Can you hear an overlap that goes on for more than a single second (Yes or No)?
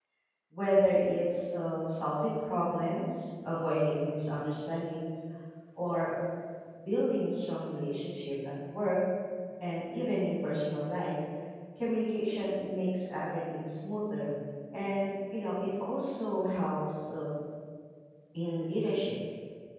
No